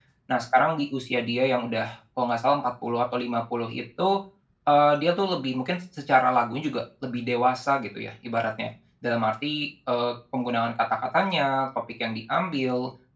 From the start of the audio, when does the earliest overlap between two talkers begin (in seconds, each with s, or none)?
none